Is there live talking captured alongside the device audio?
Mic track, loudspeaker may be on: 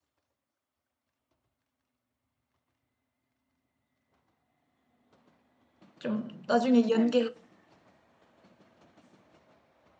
Yes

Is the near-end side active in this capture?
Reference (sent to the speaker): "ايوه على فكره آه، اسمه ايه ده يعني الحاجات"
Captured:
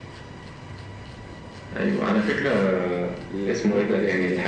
Yes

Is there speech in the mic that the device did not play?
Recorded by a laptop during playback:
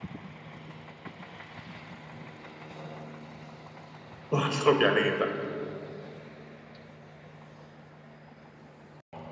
Yes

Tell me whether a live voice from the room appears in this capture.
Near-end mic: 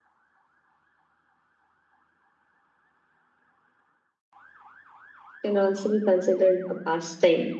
Yes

